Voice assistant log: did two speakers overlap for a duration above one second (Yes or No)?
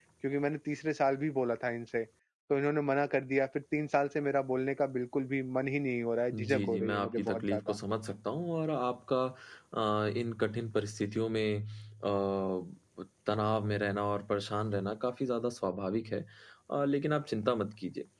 Yes